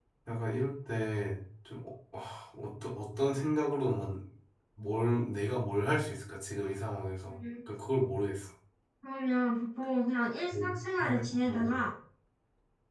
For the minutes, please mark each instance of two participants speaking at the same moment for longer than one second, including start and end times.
10.5-11.8

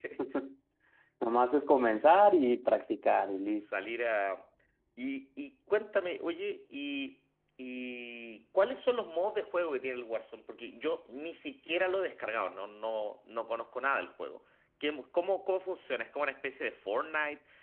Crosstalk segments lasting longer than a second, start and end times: none

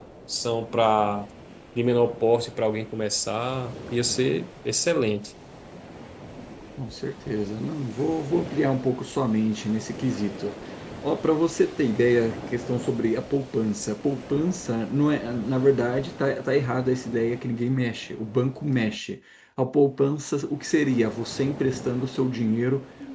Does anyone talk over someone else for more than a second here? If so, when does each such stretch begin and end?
none

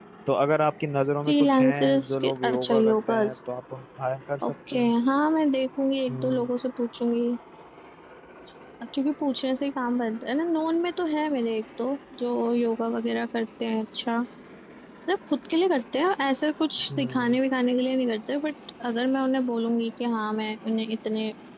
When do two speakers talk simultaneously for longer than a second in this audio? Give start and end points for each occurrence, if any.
1.3-3.4

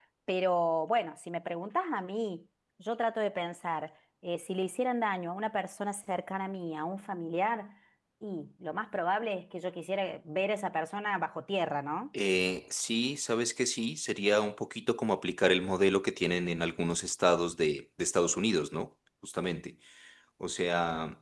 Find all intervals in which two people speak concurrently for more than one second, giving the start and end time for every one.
none

